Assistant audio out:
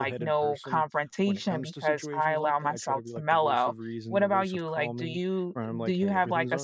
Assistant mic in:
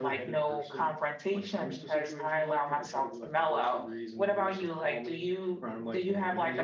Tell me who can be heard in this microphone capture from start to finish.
echo only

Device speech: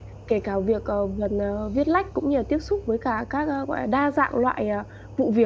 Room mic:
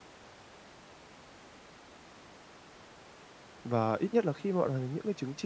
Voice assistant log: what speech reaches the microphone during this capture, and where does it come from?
user only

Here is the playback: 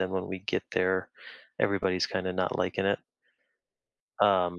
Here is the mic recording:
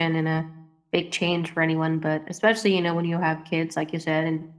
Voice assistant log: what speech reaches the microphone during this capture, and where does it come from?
user only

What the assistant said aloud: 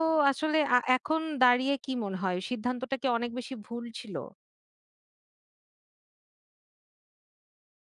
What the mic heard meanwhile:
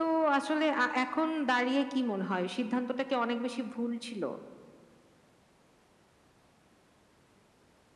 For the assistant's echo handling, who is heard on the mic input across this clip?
echo only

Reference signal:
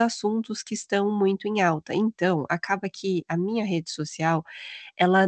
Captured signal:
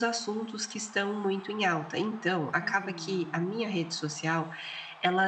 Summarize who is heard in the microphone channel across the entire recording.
both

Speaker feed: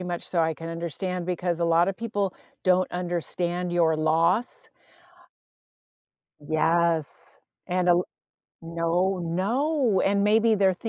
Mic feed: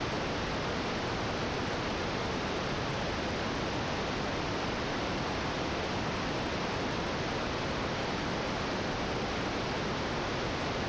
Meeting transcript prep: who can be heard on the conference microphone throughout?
neither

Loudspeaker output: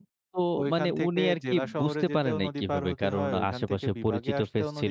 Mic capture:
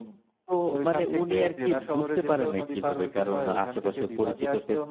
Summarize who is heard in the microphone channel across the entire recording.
echo only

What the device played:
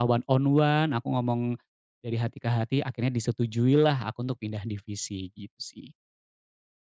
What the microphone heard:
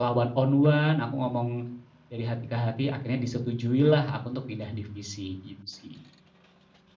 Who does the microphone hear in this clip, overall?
echo only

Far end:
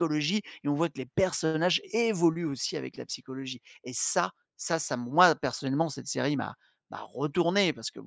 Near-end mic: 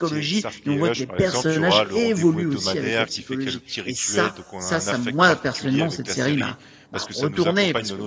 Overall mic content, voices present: both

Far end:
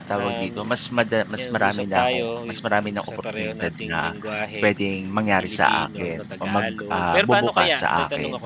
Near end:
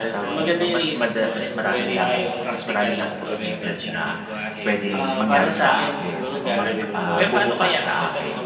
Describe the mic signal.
both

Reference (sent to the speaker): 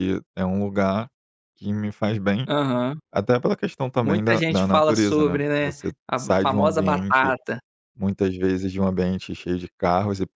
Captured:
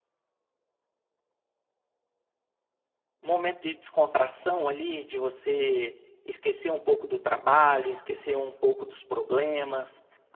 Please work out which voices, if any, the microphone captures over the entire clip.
user only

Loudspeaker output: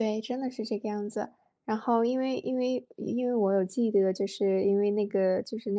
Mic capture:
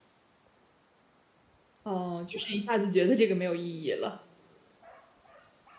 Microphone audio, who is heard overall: user only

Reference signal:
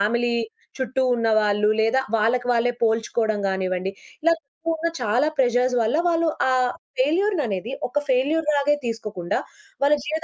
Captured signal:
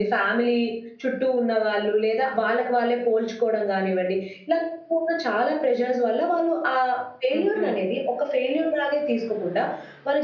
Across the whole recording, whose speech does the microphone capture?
both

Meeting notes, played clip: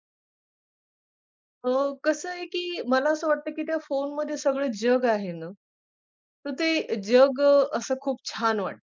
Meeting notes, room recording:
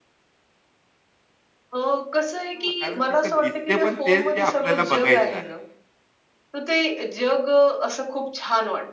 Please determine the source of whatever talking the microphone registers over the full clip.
both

